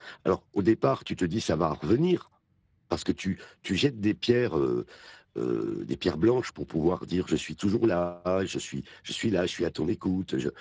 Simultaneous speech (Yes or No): No